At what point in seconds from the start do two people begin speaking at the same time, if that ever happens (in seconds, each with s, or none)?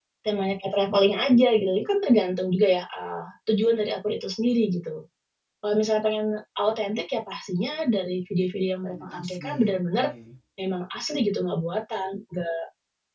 8.9 s